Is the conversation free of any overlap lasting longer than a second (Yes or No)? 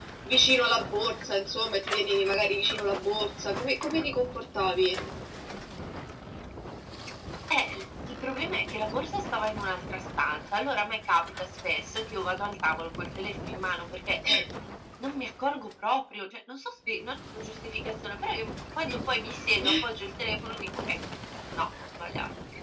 Yes